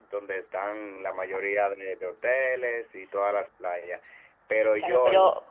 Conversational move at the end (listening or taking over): taking over